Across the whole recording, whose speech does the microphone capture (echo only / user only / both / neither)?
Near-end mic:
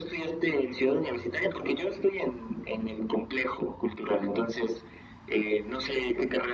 echo only